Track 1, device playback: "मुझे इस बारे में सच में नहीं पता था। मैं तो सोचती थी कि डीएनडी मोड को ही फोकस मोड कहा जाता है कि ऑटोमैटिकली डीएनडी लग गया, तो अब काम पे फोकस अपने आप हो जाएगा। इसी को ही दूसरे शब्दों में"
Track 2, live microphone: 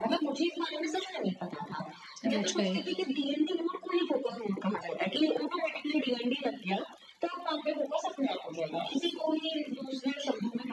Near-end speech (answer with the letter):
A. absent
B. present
B